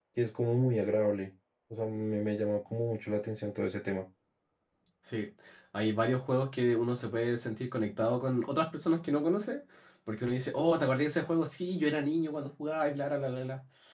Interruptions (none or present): none